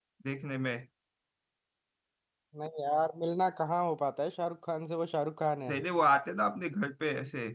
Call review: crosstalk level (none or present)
none